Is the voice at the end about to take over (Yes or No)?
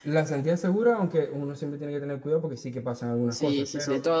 Yes